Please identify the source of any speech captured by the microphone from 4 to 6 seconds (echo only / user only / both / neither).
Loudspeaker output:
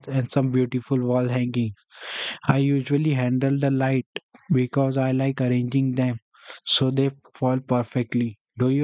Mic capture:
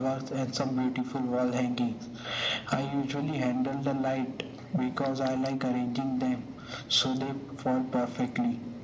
echo only